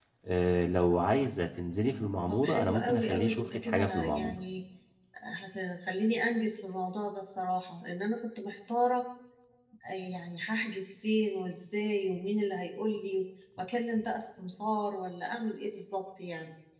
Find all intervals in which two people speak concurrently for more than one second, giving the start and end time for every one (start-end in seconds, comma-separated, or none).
2.3-4.4